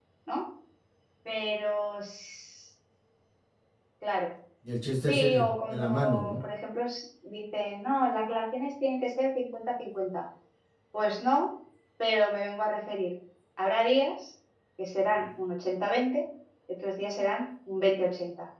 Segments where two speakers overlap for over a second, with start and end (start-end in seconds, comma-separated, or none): 5.1-6.4